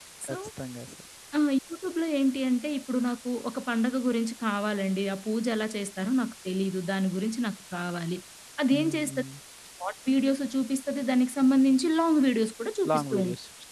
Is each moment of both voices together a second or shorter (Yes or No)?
Yes